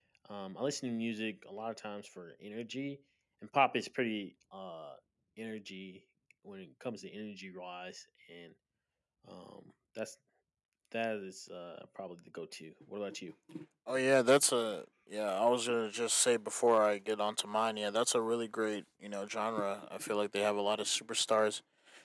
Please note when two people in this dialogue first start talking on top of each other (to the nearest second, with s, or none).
none